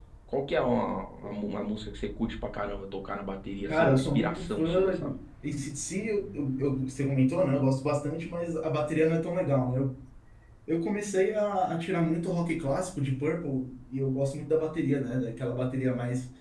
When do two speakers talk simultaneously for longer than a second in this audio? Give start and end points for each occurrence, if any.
3.6-5.1

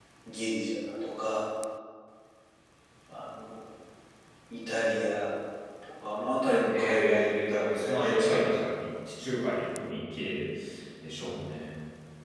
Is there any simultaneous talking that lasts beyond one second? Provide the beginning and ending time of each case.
6.7-8.6

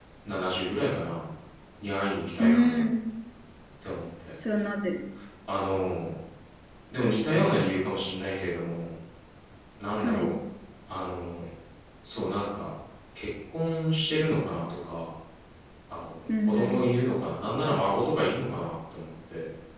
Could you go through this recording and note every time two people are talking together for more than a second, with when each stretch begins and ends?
none

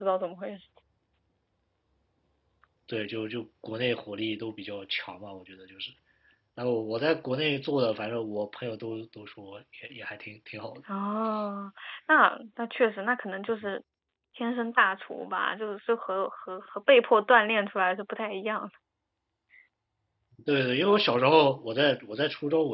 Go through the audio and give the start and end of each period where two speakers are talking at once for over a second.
none

